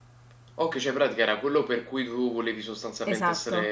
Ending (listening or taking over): taking over